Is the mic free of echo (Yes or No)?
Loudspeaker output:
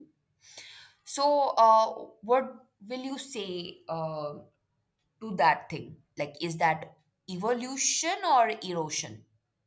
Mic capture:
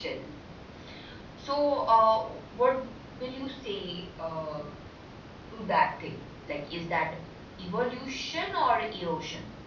No